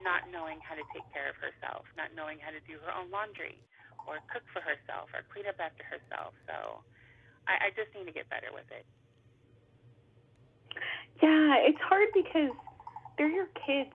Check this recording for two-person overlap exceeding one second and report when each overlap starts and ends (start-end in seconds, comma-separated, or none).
none